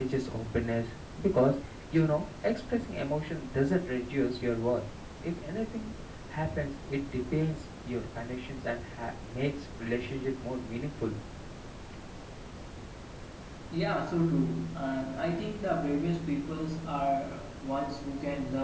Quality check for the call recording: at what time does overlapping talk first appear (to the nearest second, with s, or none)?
none